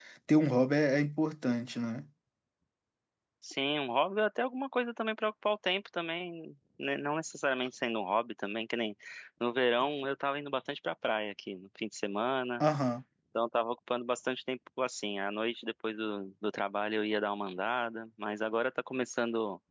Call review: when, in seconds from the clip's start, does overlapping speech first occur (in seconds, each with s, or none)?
none